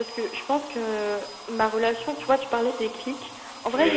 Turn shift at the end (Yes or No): No